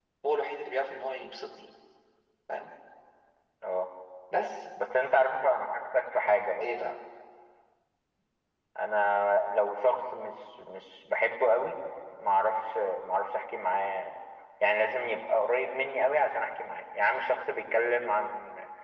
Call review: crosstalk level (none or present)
none